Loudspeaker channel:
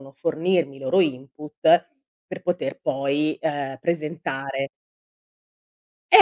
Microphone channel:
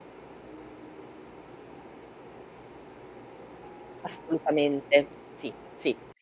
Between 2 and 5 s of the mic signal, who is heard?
user only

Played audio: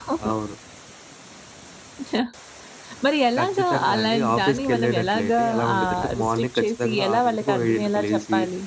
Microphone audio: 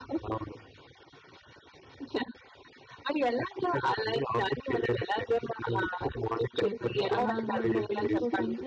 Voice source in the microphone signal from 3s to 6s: echo only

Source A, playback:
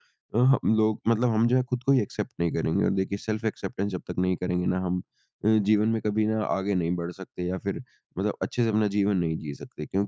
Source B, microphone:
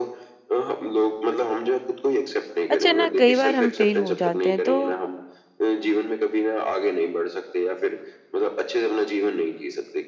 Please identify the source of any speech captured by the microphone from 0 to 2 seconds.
echo only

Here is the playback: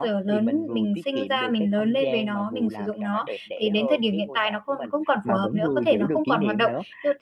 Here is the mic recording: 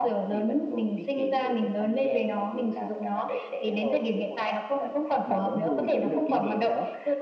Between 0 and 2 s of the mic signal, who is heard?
echo only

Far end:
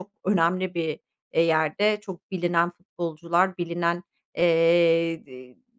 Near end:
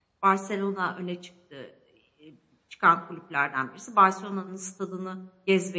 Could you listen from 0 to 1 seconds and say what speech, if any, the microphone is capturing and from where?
user only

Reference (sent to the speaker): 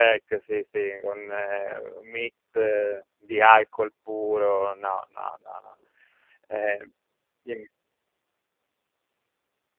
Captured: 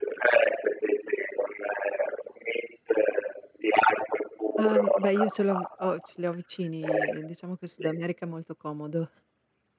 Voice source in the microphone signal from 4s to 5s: both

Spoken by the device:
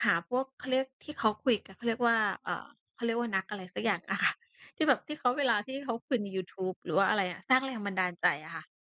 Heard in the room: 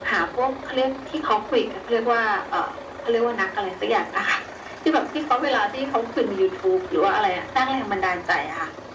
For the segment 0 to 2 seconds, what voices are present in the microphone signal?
echo only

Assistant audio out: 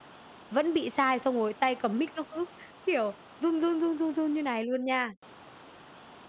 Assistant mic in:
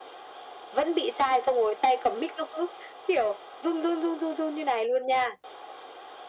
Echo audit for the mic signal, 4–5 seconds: echo only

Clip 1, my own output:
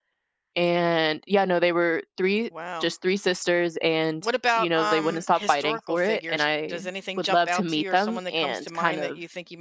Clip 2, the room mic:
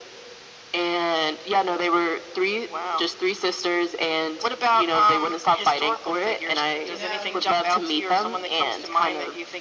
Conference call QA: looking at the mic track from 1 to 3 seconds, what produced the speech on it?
echo only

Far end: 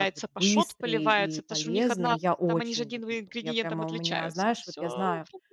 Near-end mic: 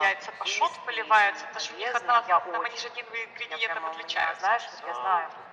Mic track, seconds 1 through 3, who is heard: echo only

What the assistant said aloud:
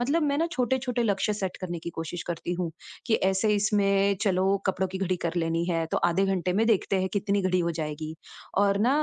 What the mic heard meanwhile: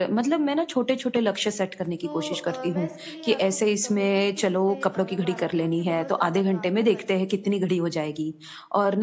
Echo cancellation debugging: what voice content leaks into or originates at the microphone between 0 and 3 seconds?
both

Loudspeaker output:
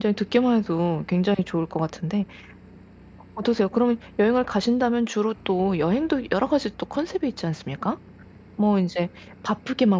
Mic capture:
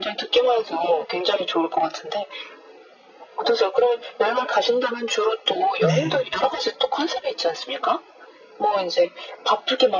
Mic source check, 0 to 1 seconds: echo only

